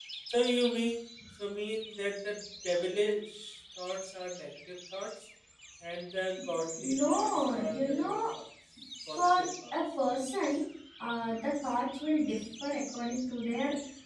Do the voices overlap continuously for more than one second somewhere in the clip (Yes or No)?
Yes